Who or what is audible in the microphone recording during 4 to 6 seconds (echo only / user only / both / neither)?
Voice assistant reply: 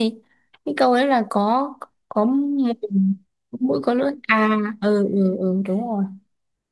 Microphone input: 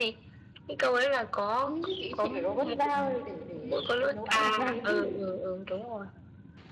both